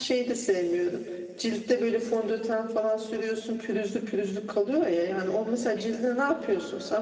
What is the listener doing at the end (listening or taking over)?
listening